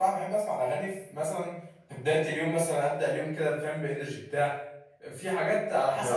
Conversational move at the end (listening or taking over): listening